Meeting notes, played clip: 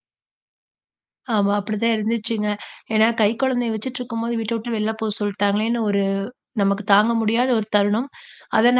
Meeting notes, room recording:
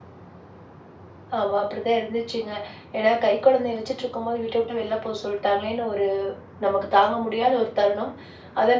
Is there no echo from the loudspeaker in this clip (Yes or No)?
No